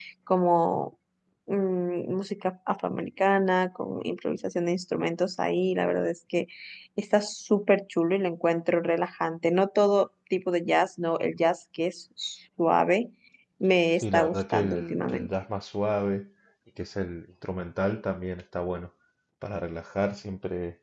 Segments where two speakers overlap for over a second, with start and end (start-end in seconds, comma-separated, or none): 14.0-15.3